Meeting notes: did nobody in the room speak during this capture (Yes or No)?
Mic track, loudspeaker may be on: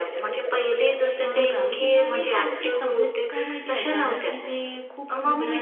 No